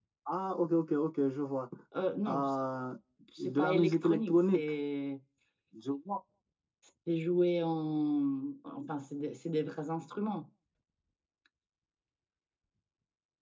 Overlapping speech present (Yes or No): Yes